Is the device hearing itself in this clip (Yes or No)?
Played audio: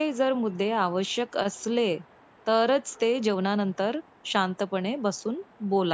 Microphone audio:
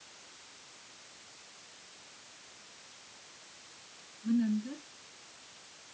No